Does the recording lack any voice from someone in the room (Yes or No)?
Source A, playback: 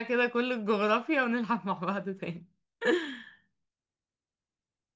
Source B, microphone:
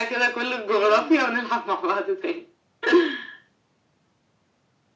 No